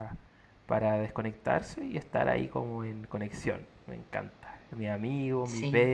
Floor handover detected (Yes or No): No